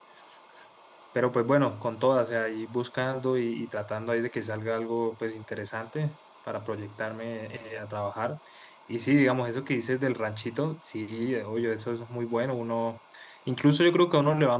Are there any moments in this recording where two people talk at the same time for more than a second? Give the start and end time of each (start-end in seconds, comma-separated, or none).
none